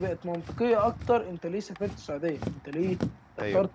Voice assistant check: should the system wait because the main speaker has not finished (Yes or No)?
Yes